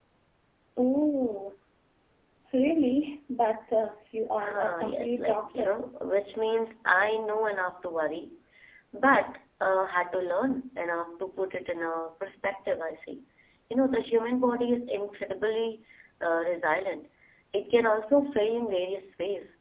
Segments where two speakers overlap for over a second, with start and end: 4.5-5.8

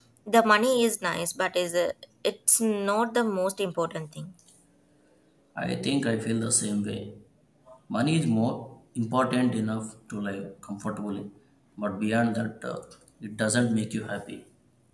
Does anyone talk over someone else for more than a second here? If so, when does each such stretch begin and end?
none

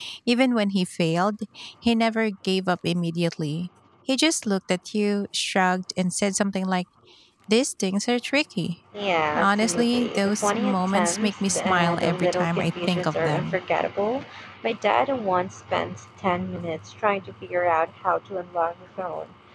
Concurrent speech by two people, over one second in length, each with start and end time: 9.3-13.6

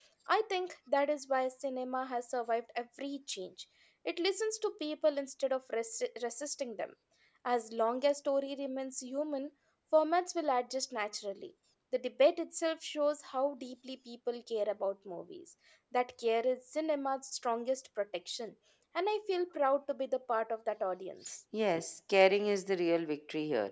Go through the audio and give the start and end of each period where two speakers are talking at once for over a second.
none

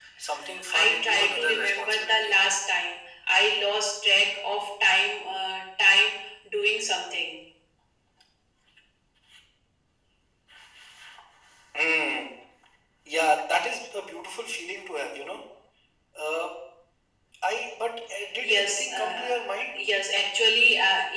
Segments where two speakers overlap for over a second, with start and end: 0.7-2.4, 18.4-19.8

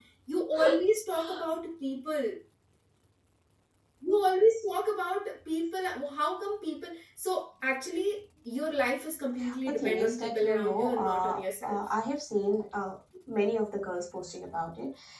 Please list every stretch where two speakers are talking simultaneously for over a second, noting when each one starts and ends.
9.7-11.8

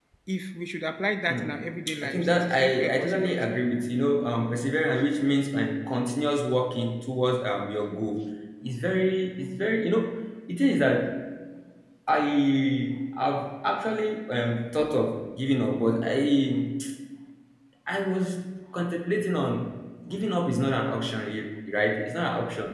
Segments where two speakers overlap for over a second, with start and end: 2.0-3.4

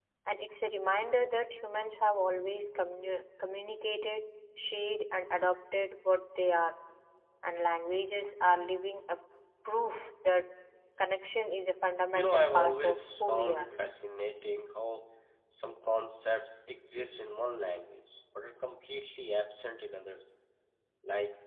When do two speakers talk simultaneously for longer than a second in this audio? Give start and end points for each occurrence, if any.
12.1-13.7

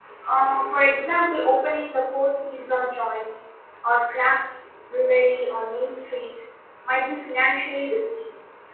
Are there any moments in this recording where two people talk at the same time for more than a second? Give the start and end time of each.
none

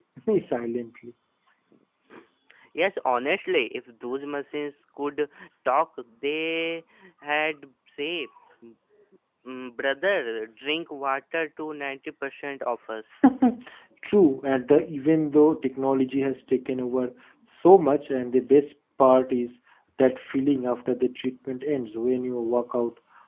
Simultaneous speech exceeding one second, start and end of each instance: none

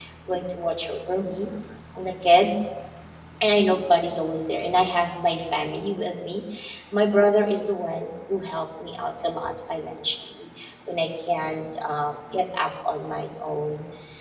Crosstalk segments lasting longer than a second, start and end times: none

